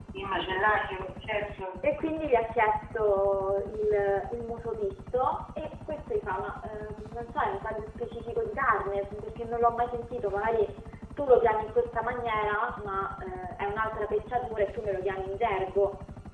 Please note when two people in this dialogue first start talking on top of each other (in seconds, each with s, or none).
none